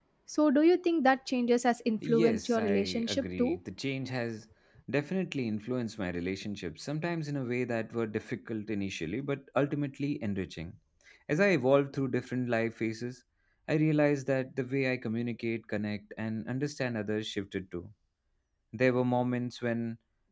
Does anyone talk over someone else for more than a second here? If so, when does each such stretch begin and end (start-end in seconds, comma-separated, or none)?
2.1-3.6